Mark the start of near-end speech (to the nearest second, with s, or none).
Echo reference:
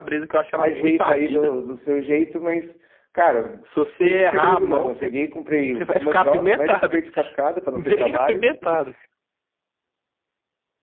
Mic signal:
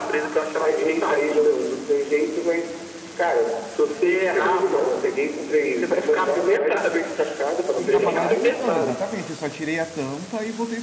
8 s